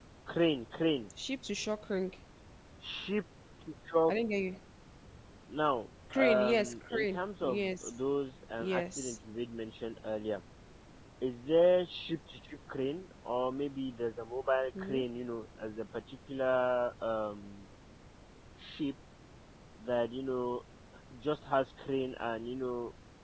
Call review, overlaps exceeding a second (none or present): present